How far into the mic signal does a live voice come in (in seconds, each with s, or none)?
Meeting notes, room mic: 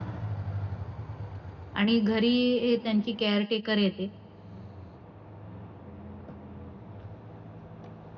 1.8 s